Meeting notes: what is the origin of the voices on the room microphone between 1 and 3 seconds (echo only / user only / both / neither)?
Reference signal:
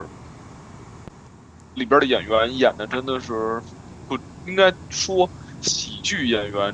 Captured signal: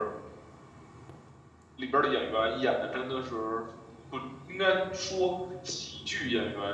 echo only